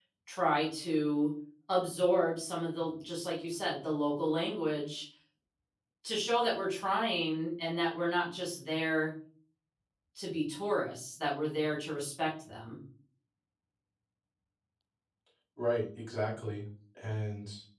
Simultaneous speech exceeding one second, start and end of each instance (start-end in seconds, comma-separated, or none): none